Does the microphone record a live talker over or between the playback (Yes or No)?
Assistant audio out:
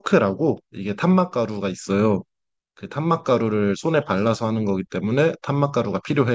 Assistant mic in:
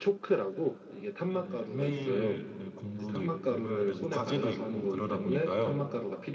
Yes